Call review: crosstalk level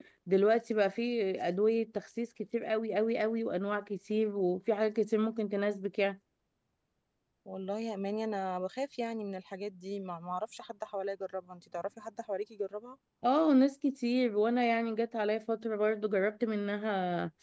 none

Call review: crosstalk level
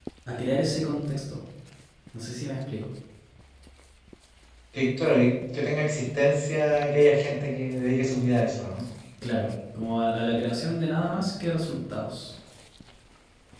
none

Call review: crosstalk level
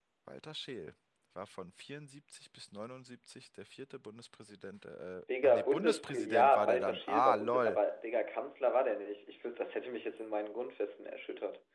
present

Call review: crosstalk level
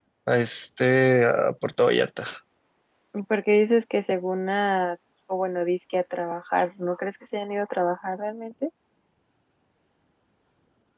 none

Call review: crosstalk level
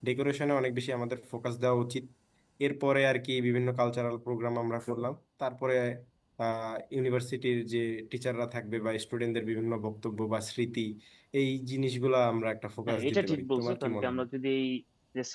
present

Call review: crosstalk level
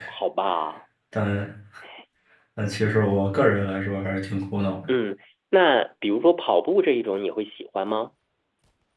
none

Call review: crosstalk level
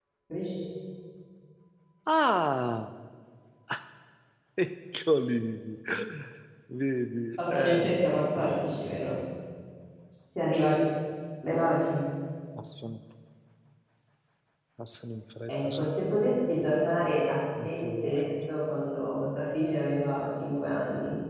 present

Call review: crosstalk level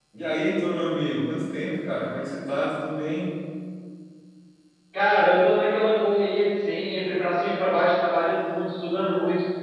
none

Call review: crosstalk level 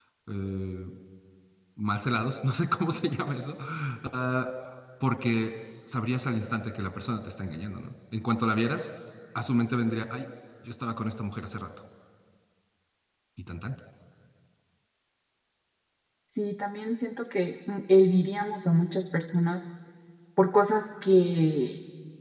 none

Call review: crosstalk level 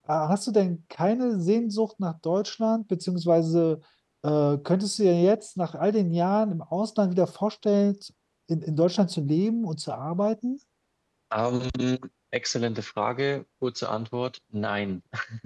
none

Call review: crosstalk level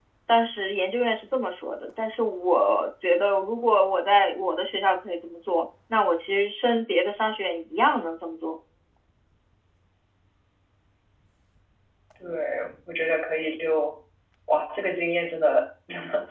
none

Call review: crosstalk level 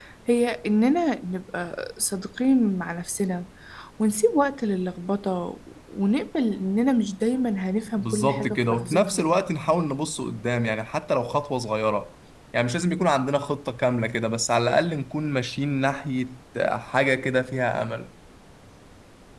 present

